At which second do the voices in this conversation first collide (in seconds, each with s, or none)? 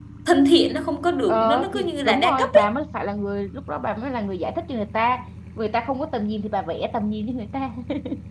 1.3 s